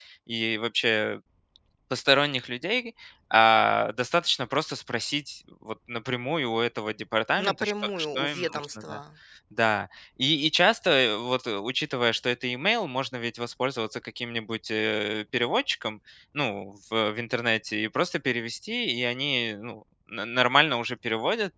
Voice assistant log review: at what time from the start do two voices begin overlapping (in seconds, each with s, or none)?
7.4 s